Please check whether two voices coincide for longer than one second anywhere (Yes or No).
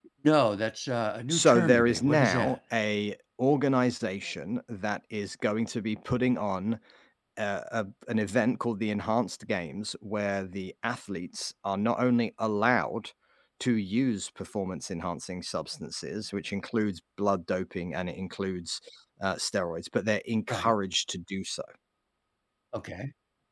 Yes